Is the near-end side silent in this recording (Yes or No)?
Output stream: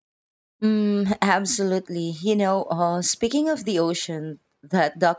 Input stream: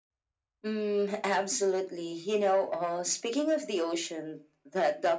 Yes